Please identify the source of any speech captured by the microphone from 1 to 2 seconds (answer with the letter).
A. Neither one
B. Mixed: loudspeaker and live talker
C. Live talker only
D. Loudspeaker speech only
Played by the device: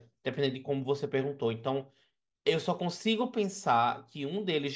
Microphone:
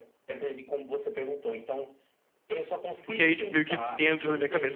D